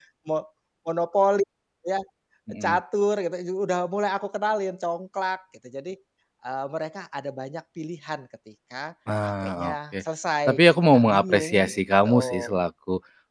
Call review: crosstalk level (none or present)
present